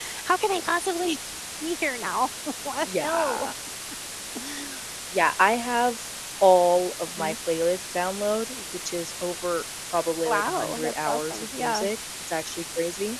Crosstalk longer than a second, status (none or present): present